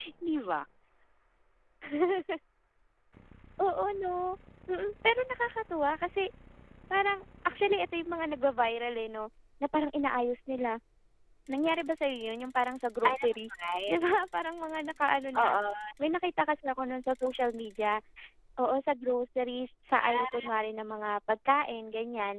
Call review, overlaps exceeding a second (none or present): none